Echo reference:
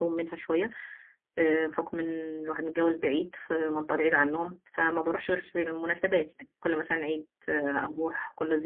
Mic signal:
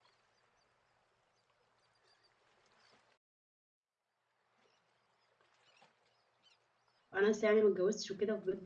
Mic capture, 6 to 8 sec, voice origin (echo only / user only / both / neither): user only